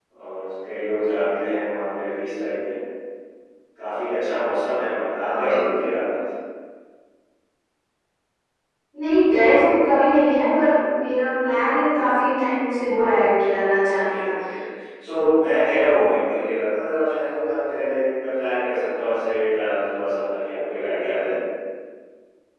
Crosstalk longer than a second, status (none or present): none